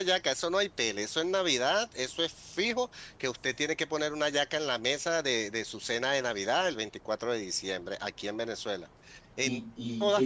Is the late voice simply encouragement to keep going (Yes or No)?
No